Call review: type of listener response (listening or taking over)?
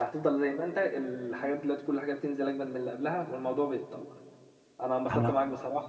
listening